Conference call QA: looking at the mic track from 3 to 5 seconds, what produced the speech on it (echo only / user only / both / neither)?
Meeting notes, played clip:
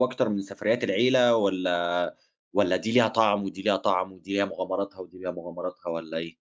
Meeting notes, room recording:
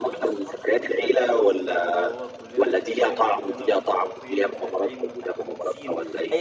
both